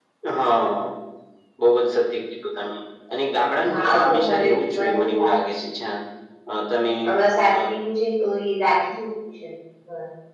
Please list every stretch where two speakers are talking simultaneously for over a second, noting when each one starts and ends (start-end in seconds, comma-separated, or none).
3.7-5.4